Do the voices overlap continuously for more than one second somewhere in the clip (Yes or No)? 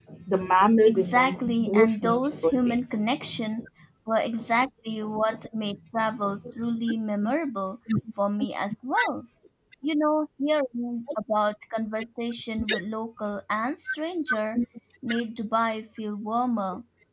Yes